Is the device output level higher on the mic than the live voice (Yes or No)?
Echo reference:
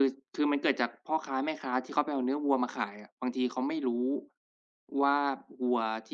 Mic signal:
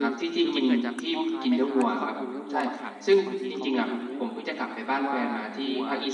No